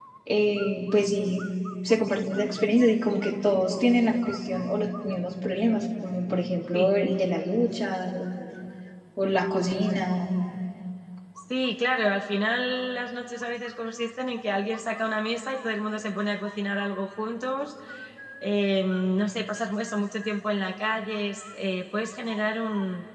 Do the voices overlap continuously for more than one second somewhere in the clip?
No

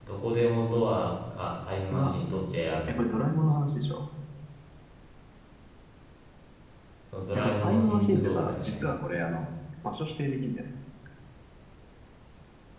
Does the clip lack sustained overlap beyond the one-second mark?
No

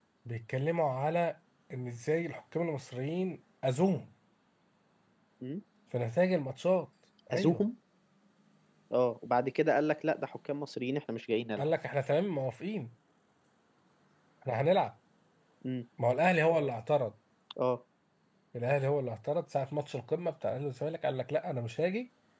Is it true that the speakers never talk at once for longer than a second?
Yes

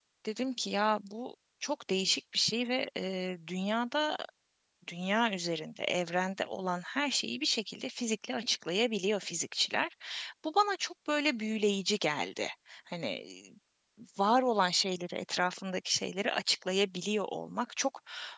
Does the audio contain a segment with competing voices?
No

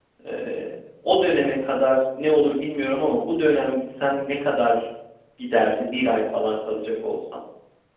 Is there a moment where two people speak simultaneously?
No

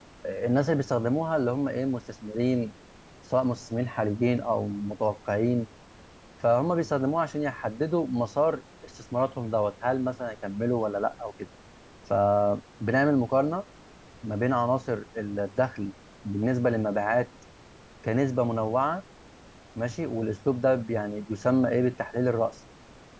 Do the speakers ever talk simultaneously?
No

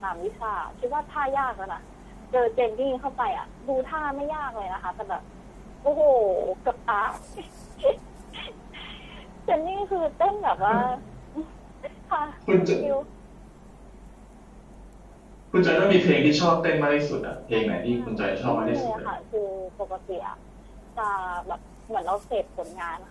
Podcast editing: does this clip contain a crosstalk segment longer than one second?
Yes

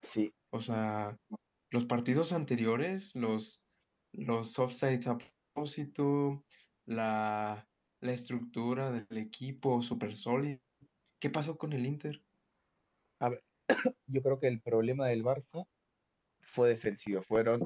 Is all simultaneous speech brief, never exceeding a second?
Yes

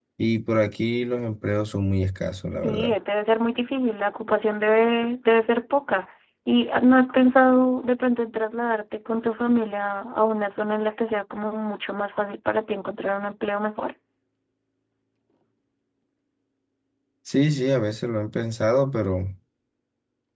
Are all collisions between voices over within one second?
Yes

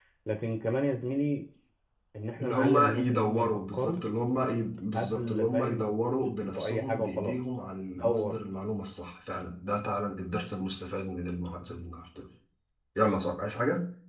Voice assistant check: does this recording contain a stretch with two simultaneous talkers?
Yes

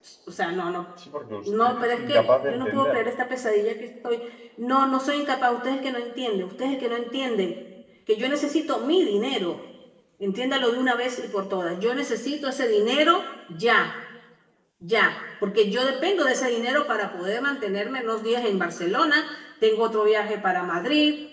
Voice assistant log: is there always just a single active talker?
No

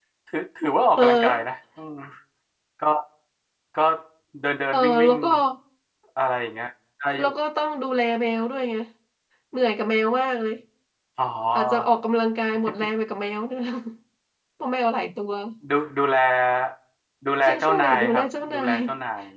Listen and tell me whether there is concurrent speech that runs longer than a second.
Yes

